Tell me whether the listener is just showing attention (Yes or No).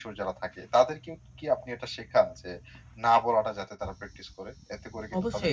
No